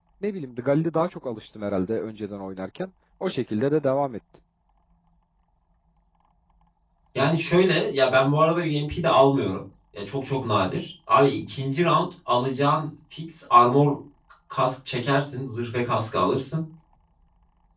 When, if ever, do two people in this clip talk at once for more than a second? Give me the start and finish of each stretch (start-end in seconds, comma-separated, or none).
none